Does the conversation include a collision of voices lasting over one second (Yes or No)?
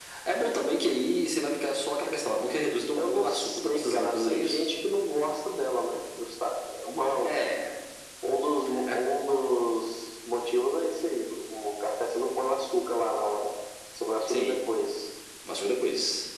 Yes